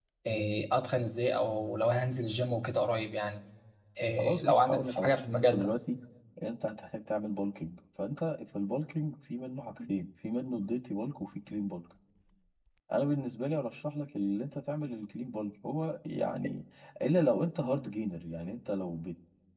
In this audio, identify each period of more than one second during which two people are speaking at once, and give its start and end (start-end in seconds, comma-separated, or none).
4.2-5.7